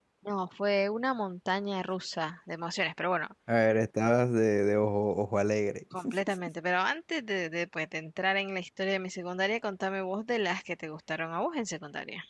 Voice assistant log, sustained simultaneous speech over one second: none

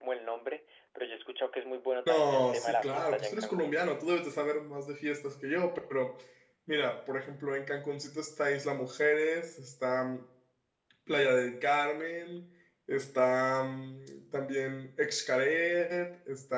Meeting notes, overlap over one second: present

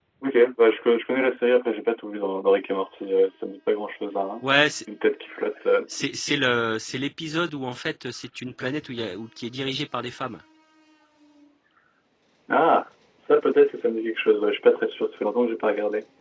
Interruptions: none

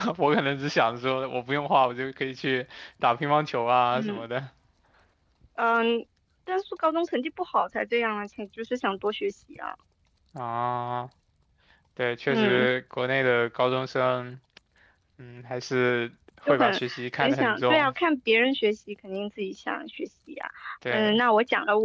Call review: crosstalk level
present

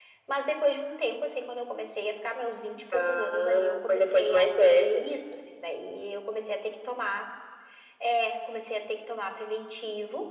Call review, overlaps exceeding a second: present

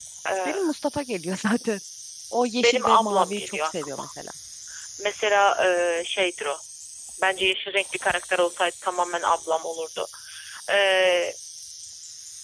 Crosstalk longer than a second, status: present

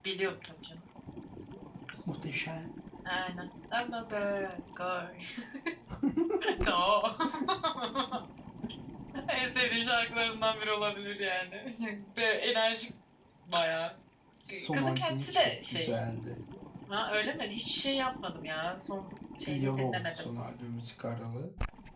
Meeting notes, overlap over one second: present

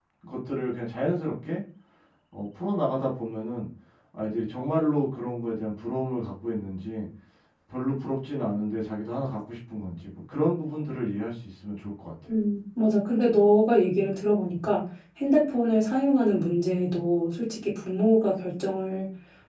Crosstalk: none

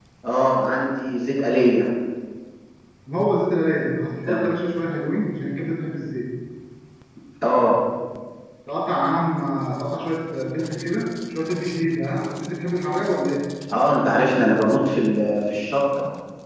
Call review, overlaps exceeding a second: none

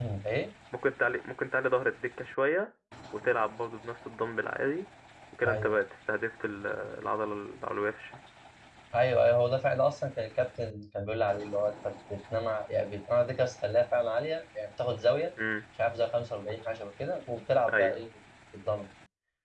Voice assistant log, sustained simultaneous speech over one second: none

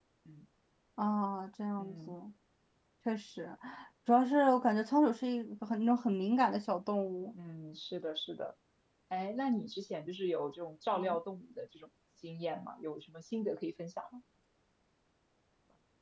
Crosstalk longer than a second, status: none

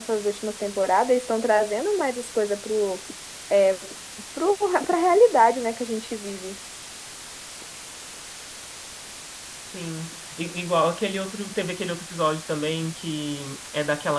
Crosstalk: none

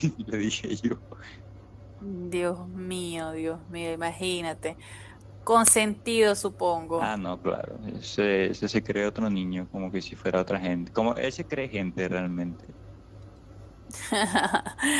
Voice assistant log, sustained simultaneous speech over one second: none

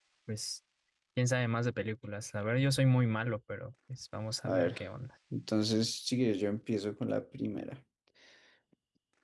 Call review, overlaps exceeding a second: none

